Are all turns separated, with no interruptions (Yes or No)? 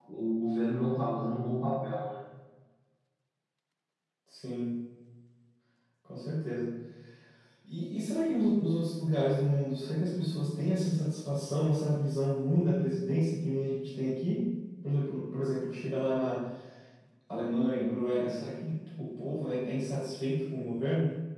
Yes